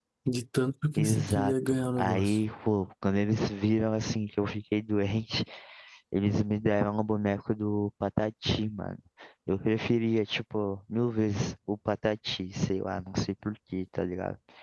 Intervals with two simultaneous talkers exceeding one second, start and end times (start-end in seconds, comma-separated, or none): 1.0-2.4